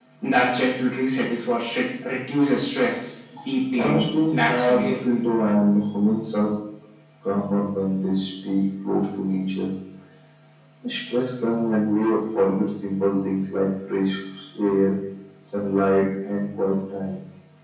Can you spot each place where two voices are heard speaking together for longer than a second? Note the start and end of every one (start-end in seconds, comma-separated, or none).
3.8-5.0